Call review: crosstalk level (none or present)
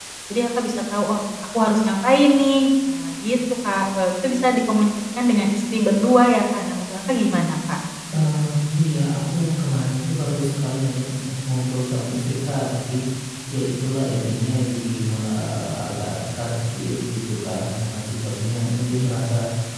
none